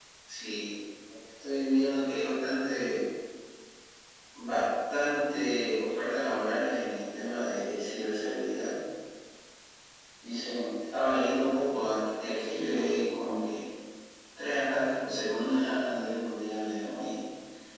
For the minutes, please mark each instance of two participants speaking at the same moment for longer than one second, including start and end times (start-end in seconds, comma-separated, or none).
none